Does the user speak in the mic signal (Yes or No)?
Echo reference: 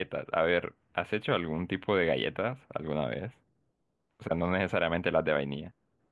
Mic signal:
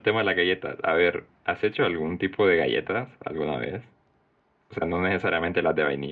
No